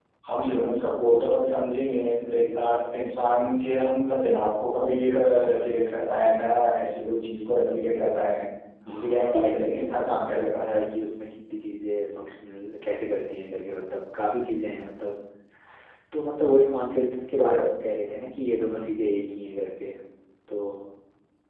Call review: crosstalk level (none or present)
present